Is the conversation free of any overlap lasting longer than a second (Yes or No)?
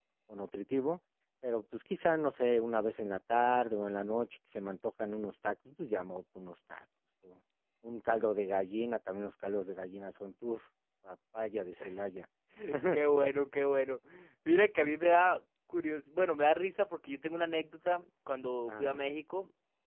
Yes